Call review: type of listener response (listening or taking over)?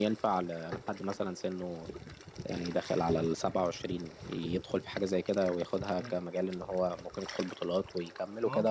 taking over